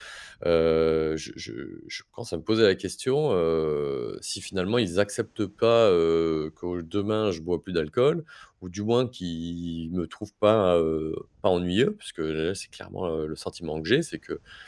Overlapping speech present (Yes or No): No